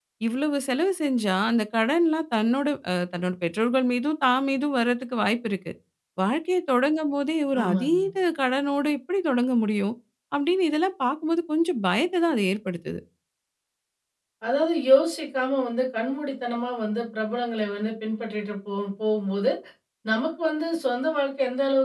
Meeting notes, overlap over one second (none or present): none